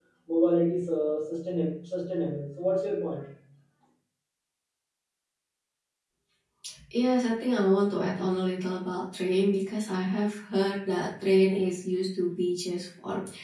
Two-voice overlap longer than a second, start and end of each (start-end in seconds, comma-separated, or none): none